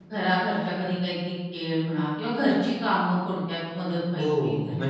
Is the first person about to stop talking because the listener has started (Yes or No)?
Yes